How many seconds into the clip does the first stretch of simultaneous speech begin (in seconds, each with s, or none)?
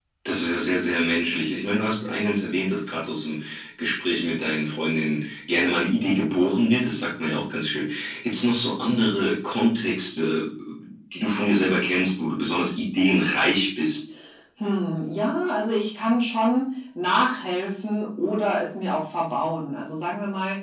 none